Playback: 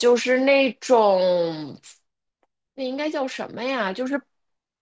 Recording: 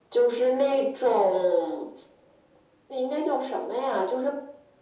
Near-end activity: none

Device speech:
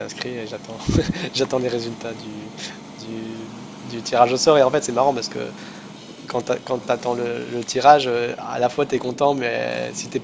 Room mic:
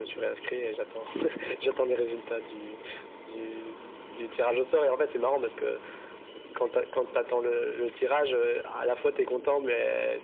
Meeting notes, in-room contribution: none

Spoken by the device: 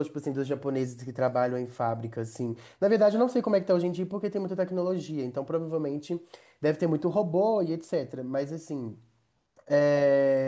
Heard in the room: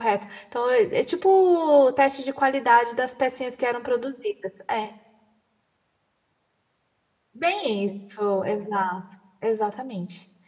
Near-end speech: present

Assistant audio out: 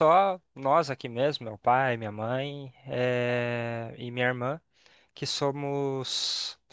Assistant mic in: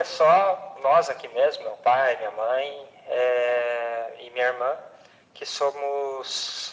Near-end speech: none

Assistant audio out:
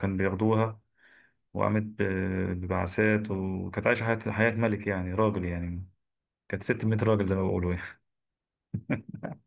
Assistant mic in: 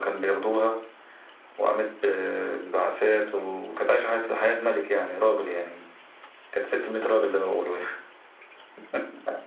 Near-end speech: none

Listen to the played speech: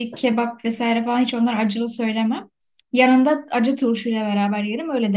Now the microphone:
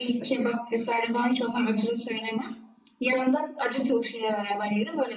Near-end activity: none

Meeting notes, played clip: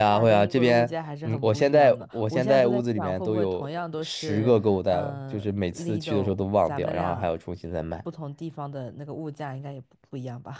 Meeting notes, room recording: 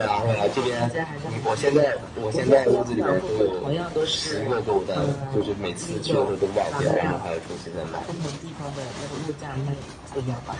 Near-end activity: none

